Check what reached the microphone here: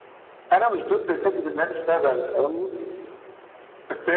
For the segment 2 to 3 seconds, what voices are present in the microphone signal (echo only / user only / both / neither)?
echo only